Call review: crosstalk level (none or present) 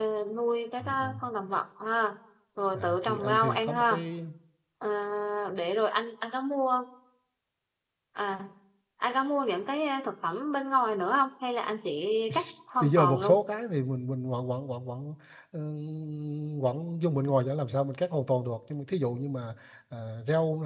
present